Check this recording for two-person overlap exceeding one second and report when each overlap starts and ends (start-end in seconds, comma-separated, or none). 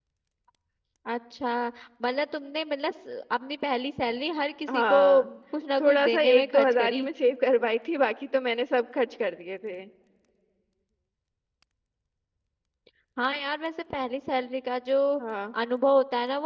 5.8-7.1